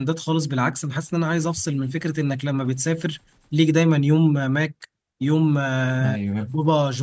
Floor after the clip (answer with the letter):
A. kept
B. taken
A